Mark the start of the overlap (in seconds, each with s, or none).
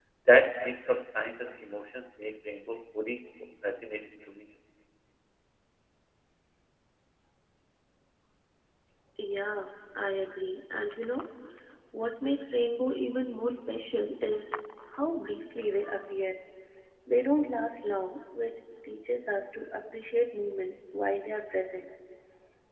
none